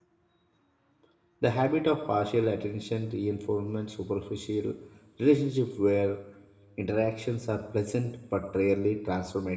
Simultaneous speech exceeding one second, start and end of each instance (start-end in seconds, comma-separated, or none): none